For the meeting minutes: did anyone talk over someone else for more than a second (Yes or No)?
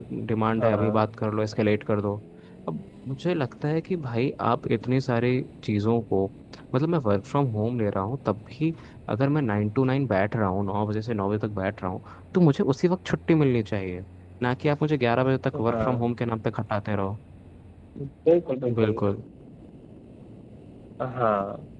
No